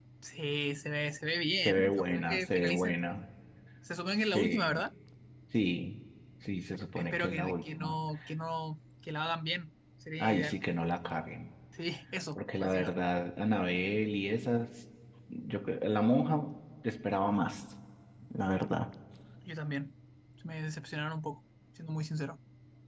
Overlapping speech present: Yes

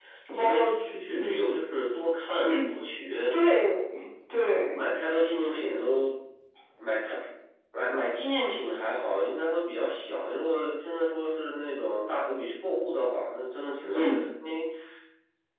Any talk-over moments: Yes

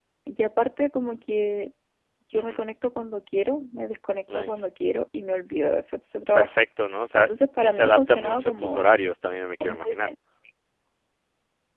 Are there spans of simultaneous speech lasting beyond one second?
Yes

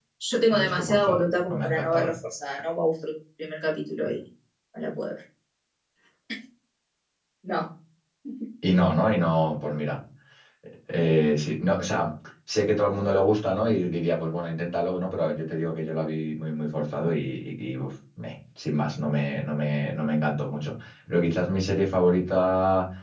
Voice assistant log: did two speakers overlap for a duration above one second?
Yes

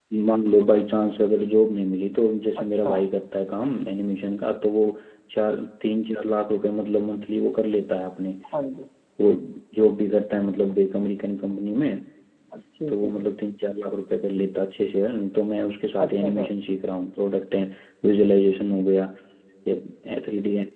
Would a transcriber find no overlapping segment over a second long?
Yes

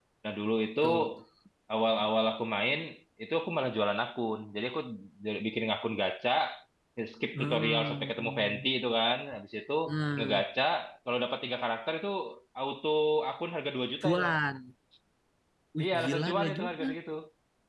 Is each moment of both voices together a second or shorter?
No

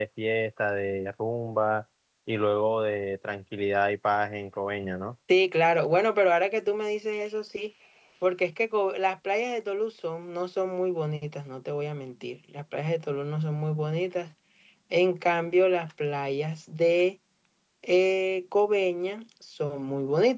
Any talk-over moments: No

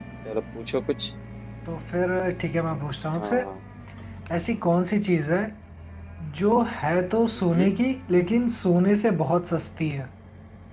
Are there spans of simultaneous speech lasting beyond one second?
No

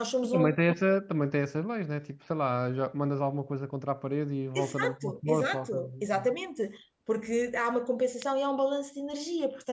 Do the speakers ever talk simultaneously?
Yes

